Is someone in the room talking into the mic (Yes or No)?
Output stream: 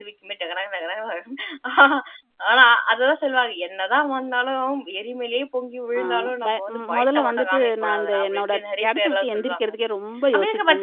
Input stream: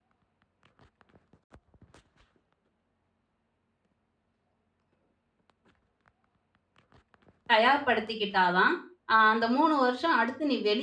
Yes